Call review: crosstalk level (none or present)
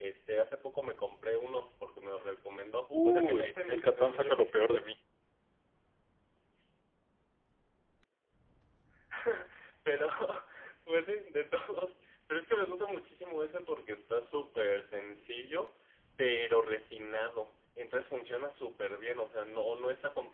present